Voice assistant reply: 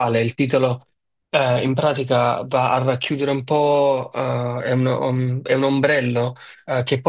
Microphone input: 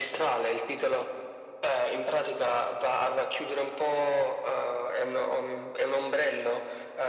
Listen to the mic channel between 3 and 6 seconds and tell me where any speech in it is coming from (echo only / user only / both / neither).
echo only